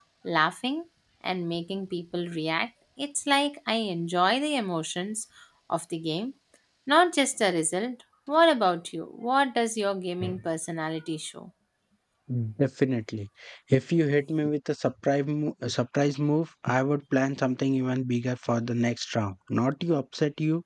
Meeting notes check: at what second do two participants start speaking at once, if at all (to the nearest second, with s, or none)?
none